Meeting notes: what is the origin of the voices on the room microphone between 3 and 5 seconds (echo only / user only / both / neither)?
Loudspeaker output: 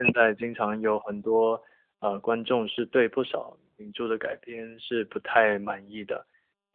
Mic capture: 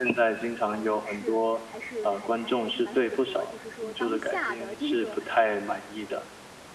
both